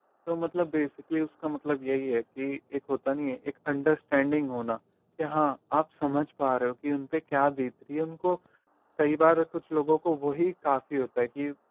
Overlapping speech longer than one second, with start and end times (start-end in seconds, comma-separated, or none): none